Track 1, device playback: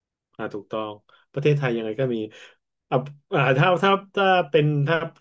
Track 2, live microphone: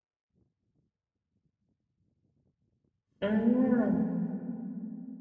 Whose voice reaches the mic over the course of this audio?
user only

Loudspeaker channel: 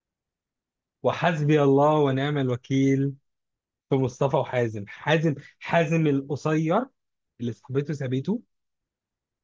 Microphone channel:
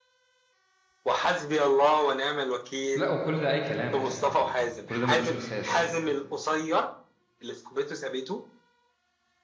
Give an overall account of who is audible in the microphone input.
both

